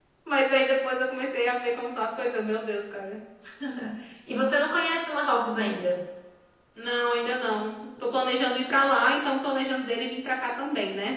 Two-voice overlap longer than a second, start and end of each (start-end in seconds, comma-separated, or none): none